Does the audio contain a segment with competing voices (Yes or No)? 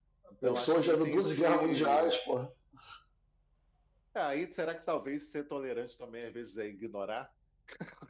Yes